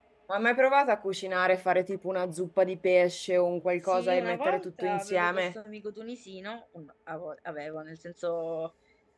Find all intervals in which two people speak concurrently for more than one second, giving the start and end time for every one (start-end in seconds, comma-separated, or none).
3.9-5.4